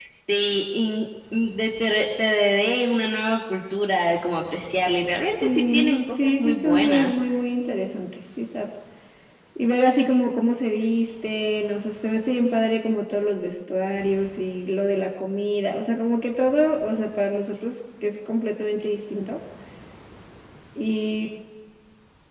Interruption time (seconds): 5 s

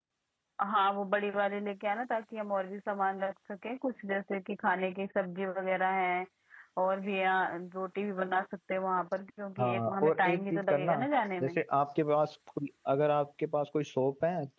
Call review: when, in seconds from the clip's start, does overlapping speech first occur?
10 s

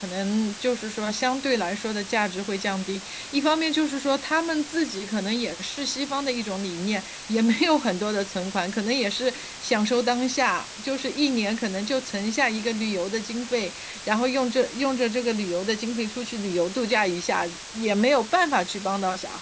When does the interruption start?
none

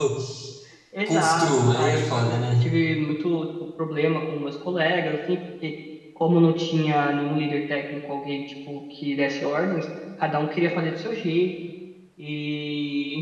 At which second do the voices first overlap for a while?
1 s

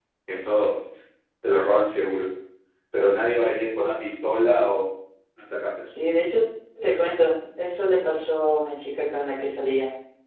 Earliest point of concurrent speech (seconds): none

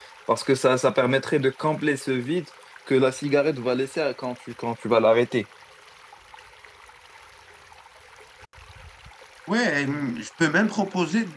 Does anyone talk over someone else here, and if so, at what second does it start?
none

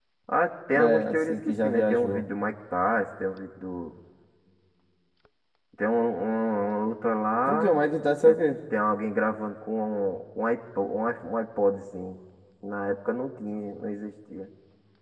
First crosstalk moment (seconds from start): 1 s

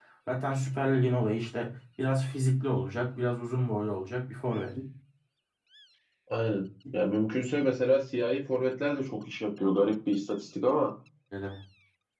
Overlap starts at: none

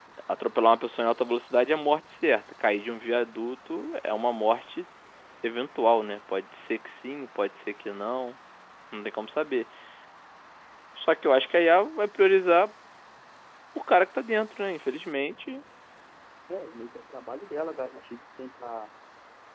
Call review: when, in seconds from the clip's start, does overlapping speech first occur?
none

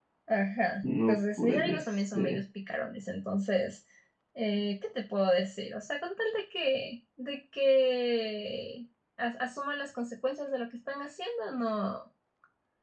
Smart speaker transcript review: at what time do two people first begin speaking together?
1 s

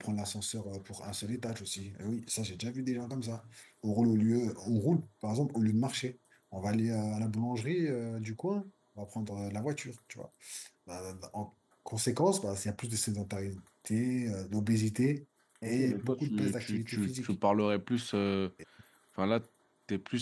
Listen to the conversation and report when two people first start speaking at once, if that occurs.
16 s

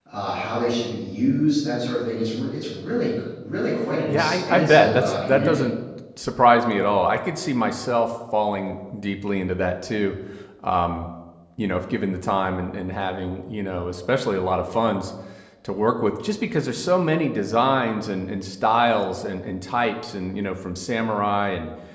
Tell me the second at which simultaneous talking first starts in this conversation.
4 s

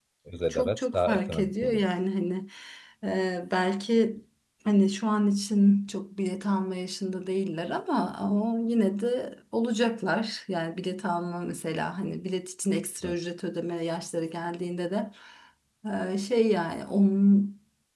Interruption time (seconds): 1 s

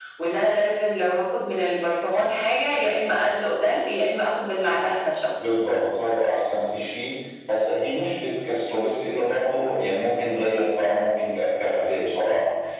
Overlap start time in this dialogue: none

